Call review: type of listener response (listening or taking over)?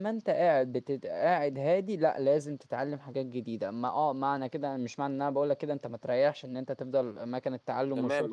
taking over